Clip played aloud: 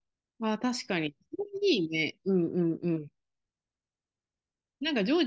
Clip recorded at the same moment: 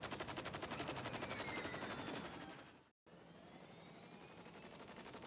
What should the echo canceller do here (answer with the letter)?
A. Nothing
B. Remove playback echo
A